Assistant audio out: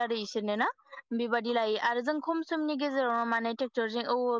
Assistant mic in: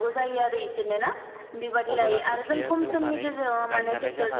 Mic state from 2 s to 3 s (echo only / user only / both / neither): both